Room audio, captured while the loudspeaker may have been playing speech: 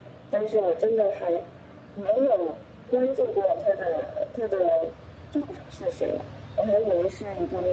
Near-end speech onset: none

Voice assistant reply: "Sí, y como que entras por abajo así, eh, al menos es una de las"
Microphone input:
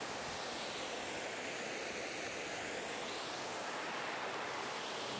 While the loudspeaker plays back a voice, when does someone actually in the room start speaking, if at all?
none

